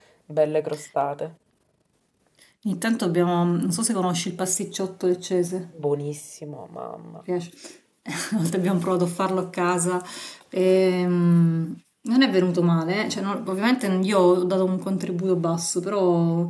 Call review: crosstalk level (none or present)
none